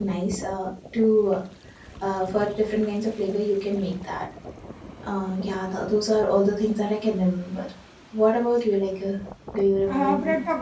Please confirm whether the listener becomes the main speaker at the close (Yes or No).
Yes